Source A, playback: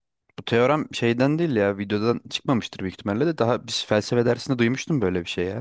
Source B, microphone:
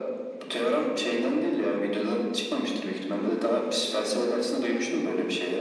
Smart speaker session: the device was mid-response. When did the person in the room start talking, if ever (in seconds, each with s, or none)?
none